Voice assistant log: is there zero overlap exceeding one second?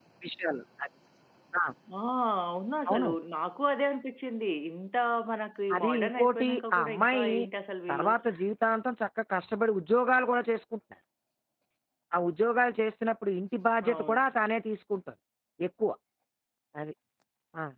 No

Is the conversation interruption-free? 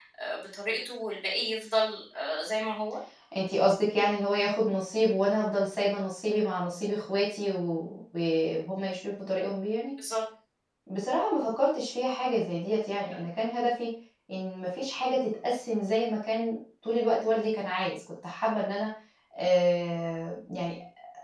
Yes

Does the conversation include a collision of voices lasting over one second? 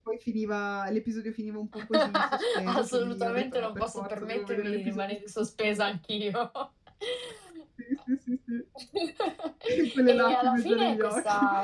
Yes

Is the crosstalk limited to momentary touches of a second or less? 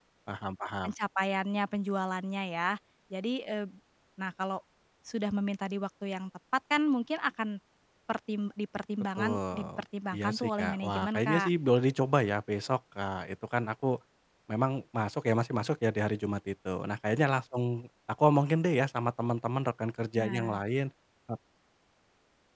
No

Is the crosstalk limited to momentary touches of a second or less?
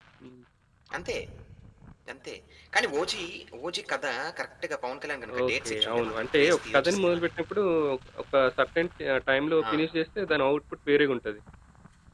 No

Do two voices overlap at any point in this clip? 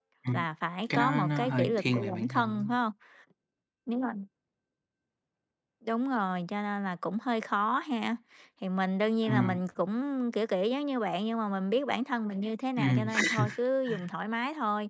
Yes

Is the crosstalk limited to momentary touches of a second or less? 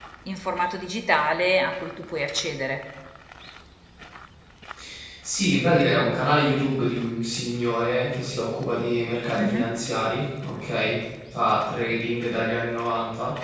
Yes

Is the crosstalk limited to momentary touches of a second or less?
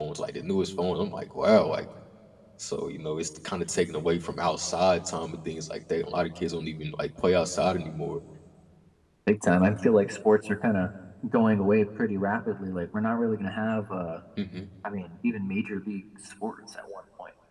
Yes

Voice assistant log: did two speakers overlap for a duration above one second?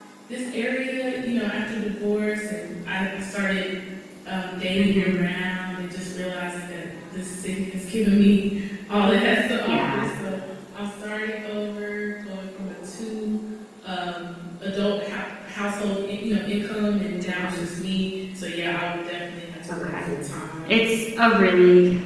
No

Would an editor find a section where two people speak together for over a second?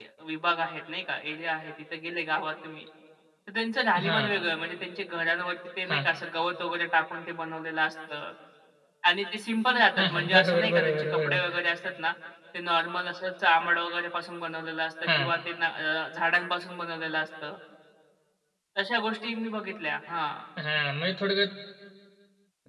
Yes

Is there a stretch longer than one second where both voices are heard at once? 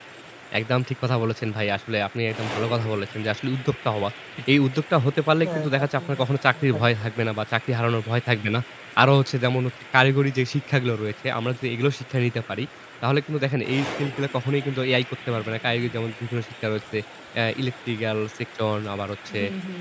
Yes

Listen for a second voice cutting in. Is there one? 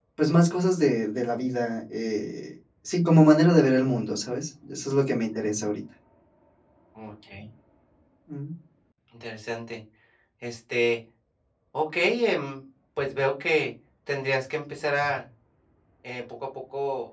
No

